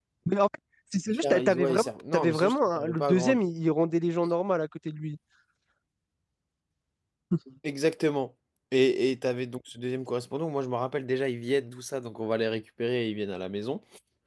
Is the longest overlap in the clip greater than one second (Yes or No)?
Yes